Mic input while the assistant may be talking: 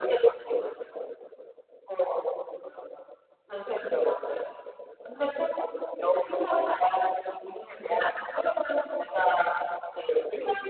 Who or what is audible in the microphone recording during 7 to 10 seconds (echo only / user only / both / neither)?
echo only